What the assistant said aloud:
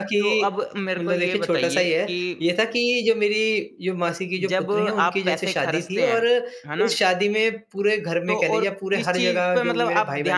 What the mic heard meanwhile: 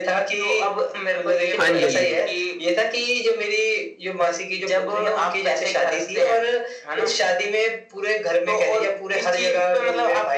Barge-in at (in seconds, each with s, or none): 1.5 s